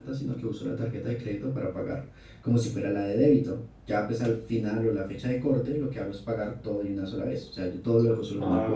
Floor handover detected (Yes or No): Yes